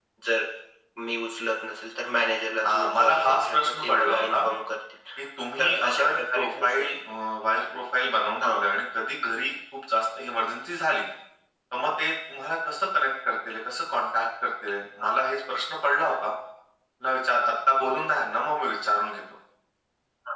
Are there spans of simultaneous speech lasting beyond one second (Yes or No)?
Yes